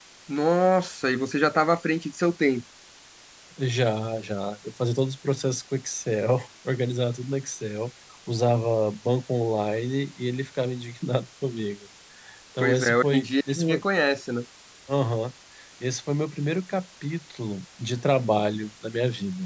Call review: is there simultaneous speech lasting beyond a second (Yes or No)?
Yes